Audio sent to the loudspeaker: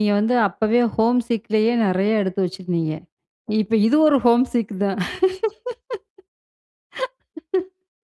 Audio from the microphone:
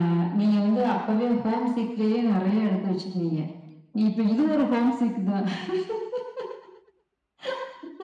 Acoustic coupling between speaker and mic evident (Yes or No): Yes